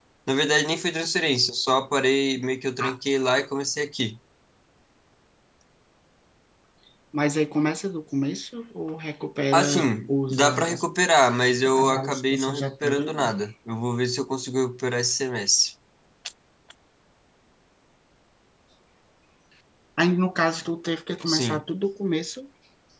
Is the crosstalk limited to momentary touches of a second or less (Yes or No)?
No